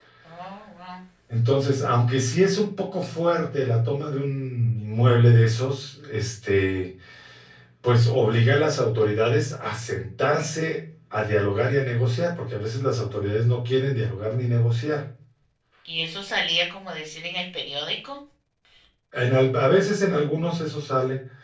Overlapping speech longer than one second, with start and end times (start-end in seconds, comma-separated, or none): none